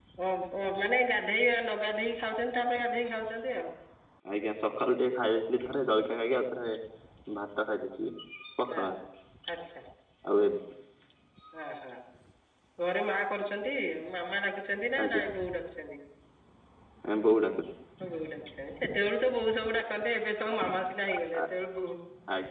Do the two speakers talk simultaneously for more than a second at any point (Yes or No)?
No